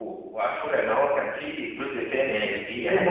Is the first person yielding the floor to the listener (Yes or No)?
Yes